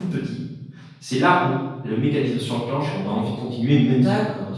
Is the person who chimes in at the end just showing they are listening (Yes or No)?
No